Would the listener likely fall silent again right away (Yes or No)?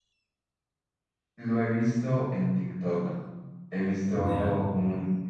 Yes